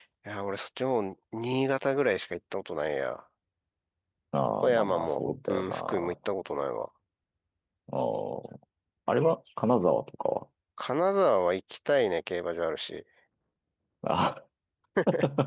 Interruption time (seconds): 5 s

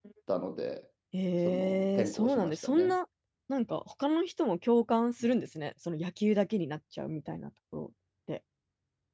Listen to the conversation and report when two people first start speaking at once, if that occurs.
1 s

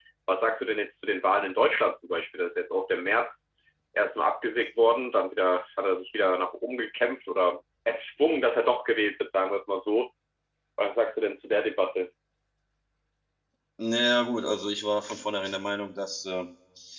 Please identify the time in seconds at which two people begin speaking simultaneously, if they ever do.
none

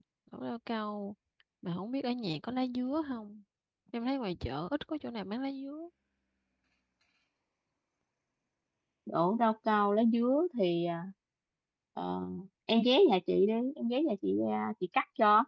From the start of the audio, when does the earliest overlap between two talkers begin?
none

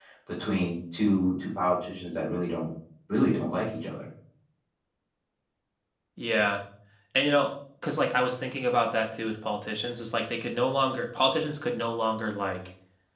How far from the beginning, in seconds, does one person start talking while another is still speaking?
none

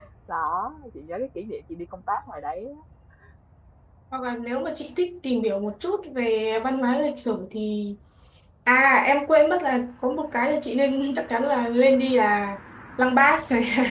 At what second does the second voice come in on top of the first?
none

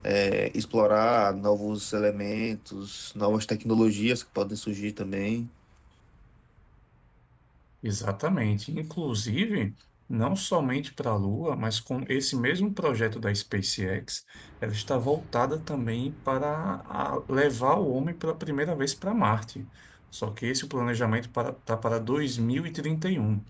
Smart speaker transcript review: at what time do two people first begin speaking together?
none

